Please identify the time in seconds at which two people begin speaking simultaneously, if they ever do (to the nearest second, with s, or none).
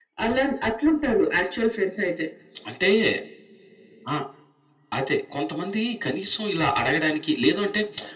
none